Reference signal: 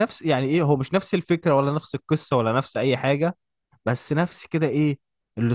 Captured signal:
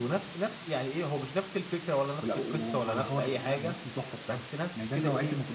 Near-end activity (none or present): present